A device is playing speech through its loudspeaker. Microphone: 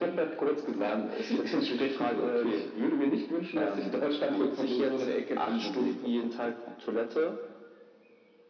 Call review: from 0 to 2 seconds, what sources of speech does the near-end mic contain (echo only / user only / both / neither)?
echo only